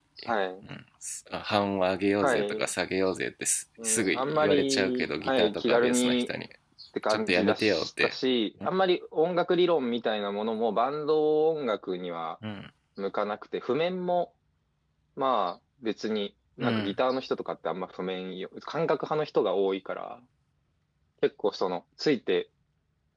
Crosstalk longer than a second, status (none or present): present